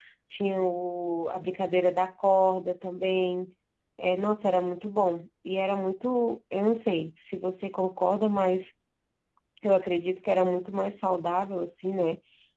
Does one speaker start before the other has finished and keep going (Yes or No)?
No